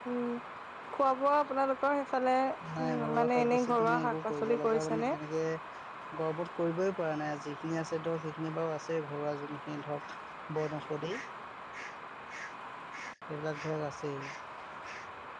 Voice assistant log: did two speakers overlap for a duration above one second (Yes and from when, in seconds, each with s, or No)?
Yes, from 2.6 s